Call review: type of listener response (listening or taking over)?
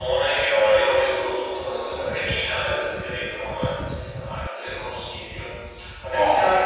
listening